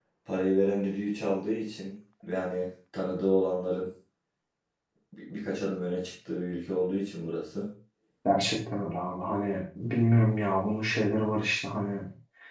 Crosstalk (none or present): none